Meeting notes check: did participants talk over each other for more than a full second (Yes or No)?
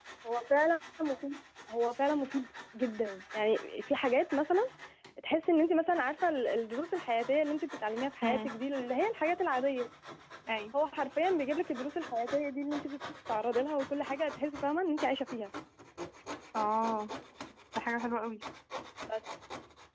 No